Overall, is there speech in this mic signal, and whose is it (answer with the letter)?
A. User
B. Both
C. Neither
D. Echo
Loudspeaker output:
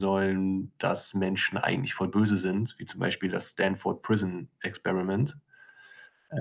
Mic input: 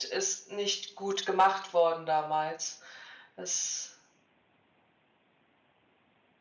A